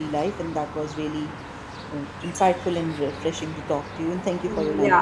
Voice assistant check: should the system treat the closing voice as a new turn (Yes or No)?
Yes